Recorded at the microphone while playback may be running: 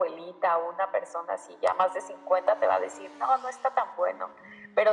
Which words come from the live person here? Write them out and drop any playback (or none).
none